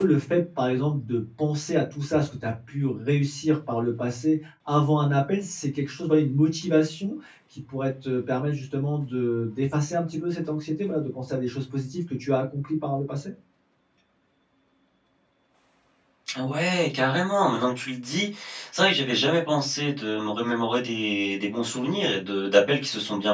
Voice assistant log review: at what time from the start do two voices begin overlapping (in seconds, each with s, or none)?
none